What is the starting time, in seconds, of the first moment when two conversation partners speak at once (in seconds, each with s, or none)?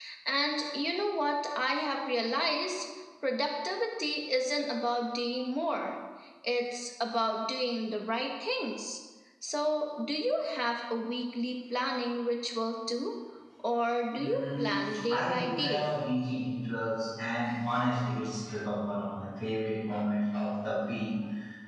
14.2 s